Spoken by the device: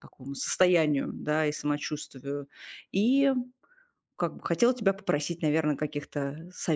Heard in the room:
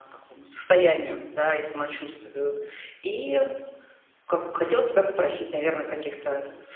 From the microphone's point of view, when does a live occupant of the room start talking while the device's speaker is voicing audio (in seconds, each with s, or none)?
none